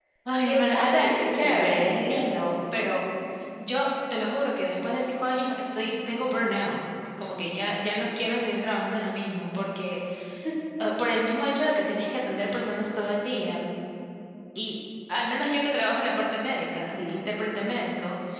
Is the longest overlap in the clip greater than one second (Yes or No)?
Yes